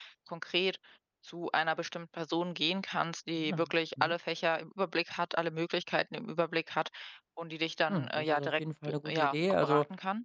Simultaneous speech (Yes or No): Yes